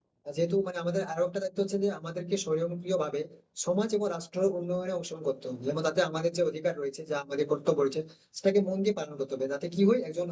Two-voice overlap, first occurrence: none

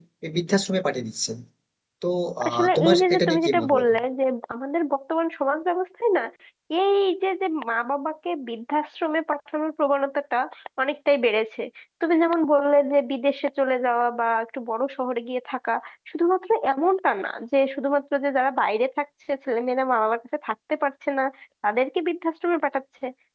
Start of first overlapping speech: 2.5 s

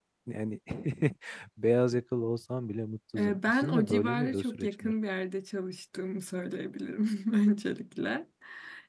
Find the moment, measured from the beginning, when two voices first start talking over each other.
3.1 s

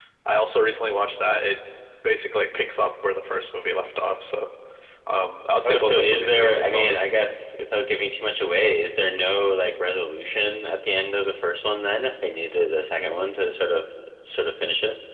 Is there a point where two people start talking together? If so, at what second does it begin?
5.7 s

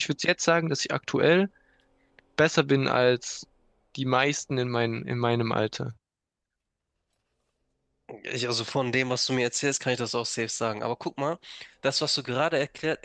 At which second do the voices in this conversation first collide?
none

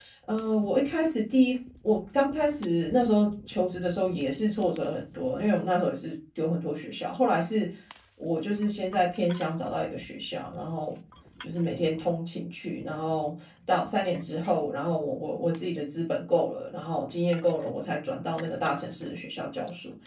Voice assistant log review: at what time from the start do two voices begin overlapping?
none

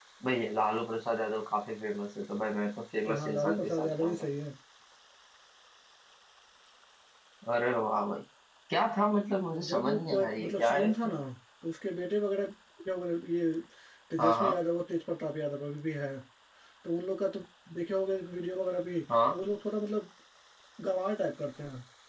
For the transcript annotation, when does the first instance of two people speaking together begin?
3.0 s

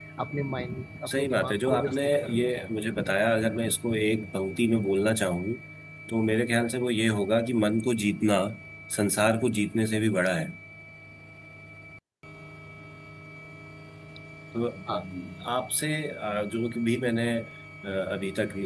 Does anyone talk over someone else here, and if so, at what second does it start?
1.1 s

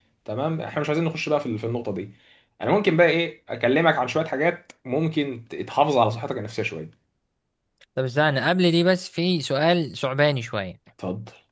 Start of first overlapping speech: none

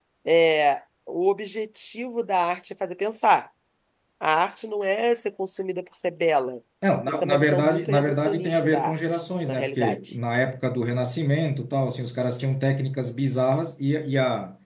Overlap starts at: 7.1 s

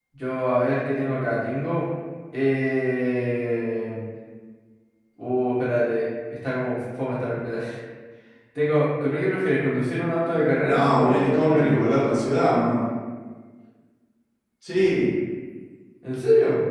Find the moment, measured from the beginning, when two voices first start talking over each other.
10.6 s

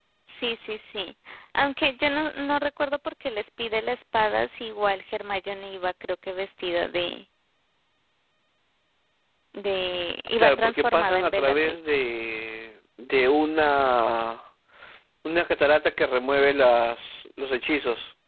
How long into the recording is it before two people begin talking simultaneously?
10.4 s

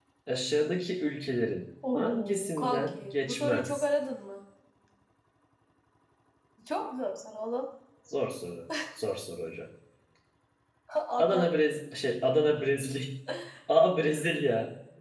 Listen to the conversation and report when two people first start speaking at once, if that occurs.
1.9 s

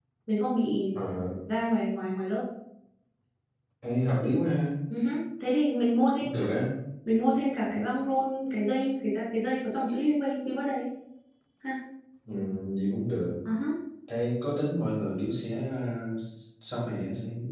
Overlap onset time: none

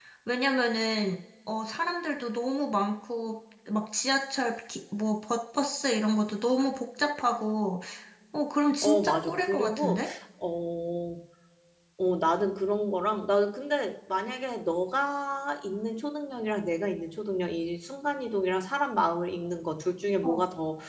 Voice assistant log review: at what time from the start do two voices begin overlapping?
8.8 s

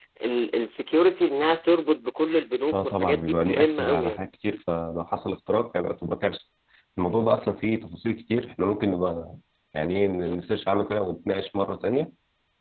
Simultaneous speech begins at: 2.7 s

